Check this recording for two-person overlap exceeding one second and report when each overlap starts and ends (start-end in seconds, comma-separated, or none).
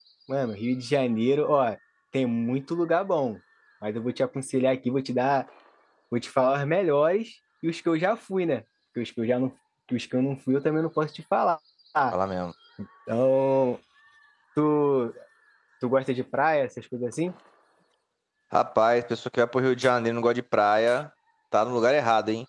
none